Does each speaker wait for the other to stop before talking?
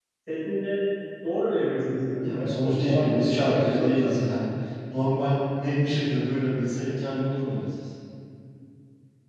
No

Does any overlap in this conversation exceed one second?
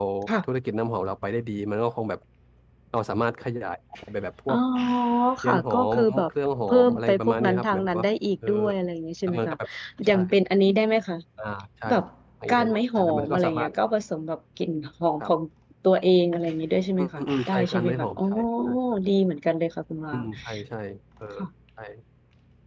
Yes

